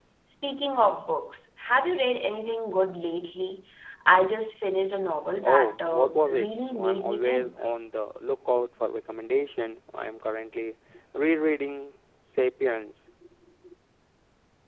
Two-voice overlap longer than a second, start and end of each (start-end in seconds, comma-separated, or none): 5.4-7.6